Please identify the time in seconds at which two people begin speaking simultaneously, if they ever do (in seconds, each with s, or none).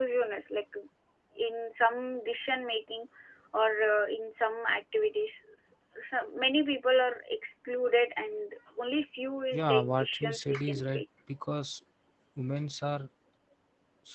9.5 s